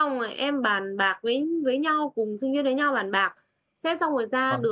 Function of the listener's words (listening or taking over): listening